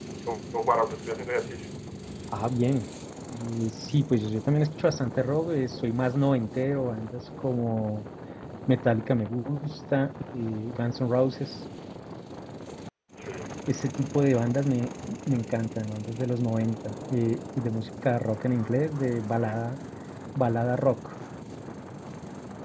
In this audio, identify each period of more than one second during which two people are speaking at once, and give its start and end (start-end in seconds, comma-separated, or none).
none